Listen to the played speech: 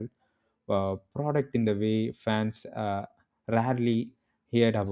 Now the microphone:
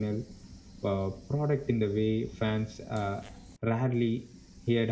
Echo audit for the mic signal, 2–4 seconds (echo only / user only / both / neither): echo only